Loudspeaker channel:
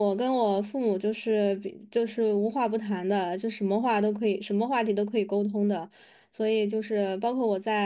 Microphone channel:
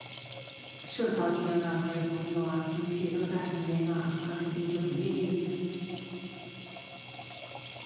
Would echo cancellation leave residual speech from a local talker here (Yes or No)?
Yes